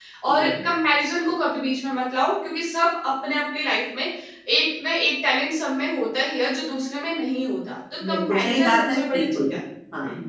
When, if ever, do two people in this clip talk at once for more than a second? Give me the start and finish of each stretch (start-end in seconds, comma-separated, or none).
8.1-9.5